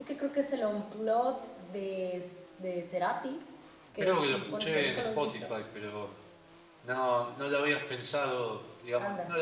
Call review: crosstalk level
present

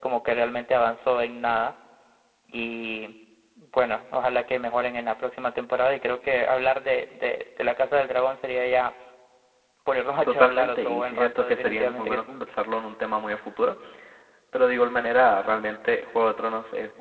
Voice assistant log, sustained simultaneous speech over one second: present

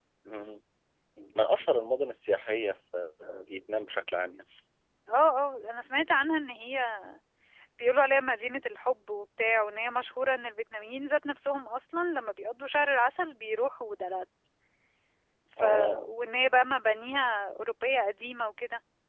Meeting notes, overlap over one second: none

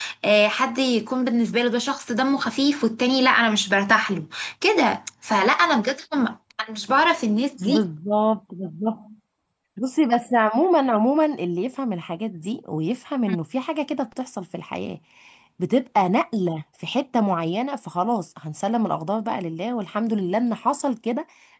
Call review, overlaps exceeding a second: none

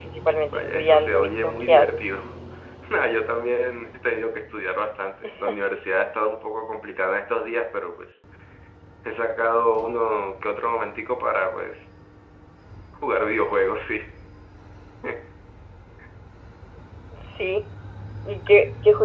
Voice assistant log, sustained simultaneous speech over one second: present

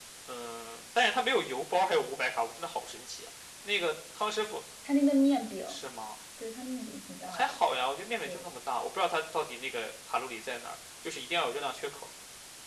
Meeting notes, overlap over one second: none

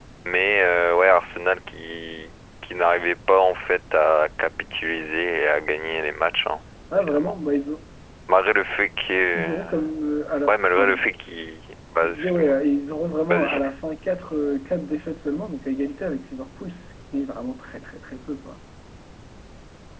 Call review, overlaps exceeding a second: none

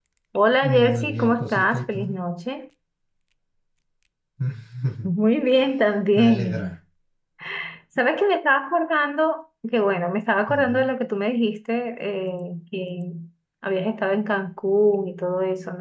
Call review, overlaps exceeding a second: present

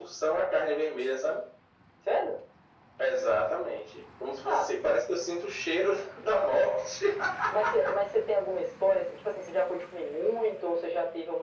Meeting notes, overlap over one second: none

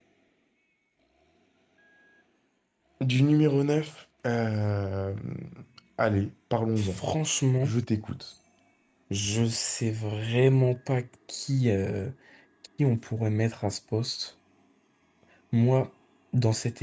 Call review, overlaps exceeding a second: none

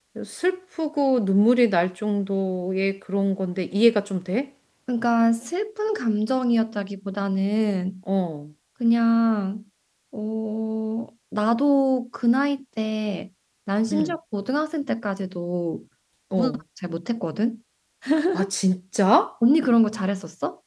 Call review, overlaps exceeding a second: none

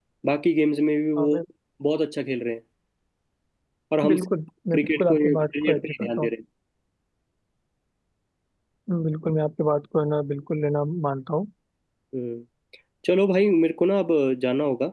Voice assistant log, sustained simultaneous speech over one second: present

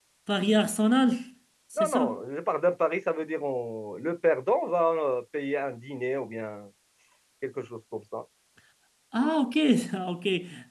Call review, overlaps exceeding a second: none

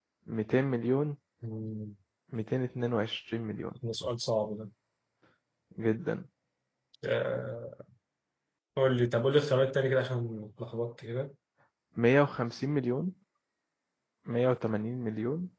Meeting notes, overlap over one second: none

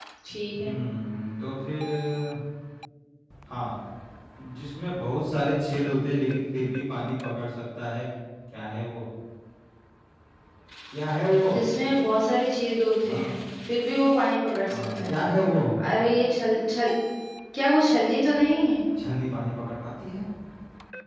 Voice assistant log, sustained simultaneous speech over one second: none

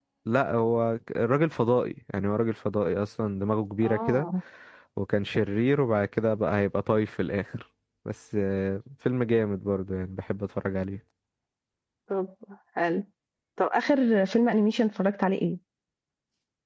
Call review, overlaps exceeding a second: none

